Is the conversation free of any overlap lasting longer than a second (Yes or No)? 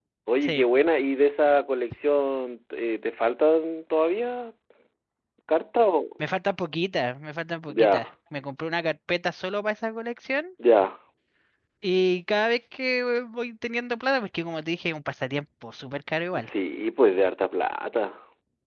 Yes